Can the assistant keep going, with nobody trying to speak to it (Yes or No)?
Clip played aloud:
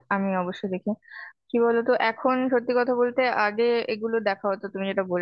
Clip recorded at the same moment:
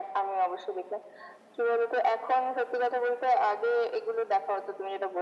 Yes